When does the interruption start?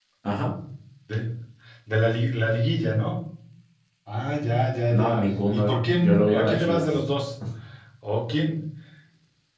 4.9 s

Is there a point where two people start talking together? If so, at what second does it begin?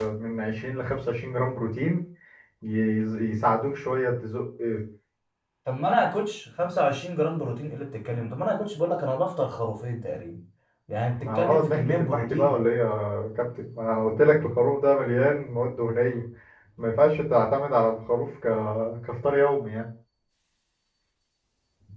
11.2 s

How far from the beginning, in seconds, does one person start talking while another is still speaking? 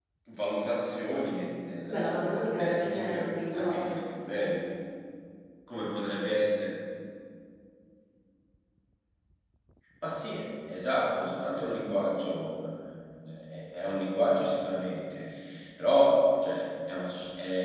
1.8 s

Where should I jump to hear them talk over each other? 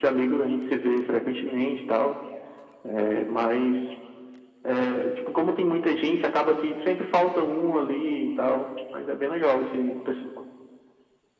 none

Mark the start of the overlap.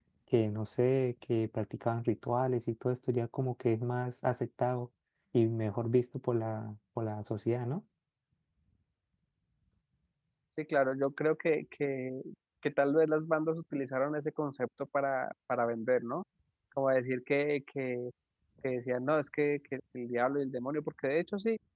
none

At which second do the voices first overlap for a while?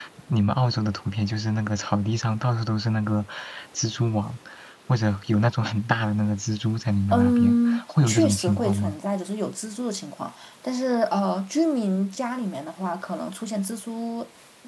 7.1 s

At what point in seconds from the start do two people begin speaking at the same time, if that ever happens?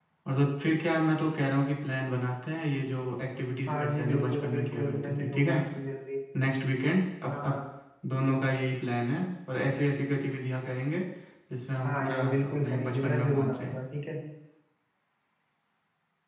3.7 s

